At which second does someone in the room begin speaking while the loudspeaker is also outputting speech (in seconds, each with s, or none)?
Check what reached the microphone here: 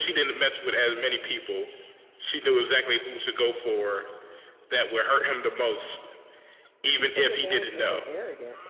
6.8 s